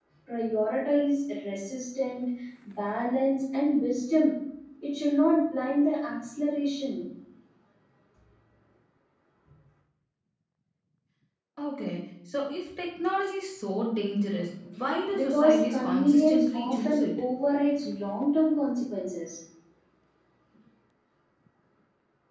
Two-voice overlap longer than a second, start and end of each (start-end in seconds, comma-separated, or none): 15.1-17.0